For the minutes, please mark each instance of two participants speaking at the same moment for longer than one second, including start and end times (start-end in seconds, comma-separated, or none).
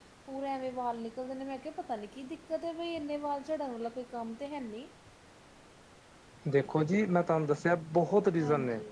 none